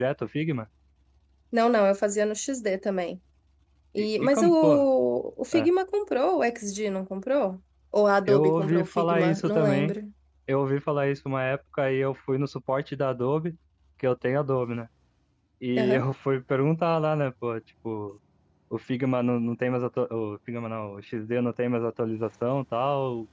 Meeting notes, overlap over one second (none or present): present